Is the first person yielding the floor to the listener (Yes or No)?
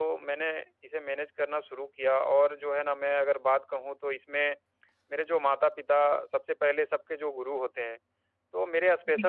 No